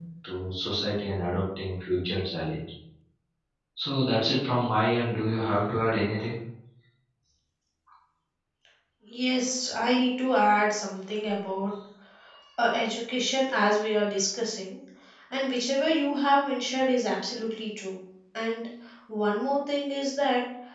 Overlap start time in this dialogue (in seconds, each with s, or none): none